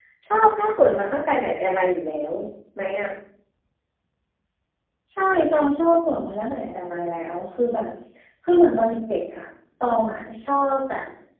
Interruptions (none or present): none